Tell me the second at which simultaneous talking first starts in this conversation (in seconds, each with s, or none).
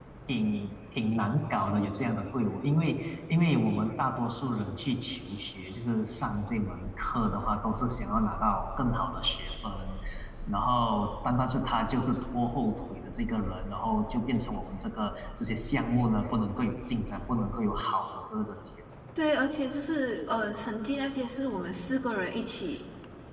none